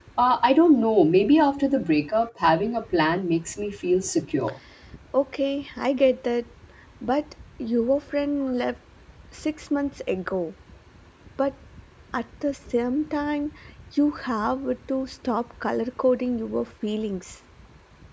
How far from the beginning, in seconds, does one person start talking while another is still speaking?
none

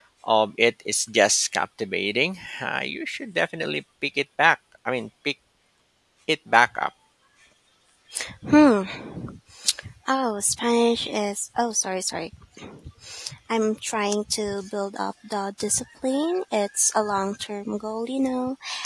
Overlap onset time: none

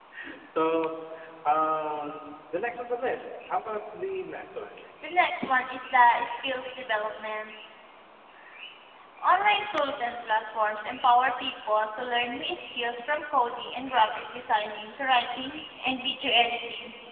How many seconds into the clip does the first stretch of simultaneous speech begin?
none

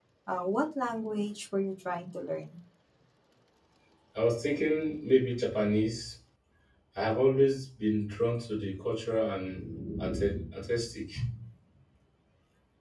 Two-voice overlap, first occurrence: none

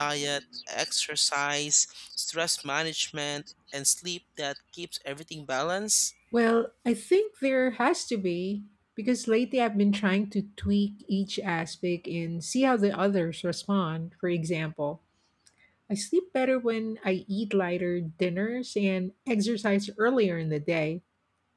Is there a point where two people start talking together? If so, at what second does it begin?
none

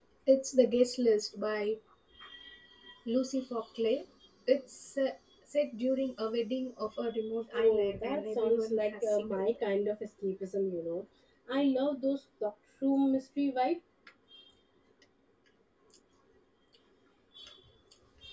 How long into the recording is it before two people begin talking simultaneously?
7.5 s

